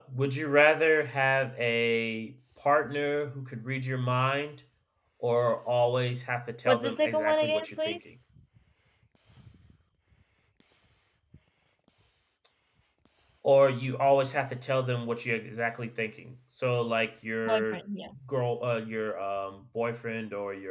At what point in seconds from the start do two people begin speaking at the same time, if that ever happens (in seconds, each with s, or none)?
6.7 s